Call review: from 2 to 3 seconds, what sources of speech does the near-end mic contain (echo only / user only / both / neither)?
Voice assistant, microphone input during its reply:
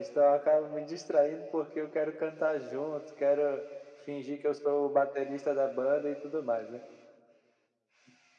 echo only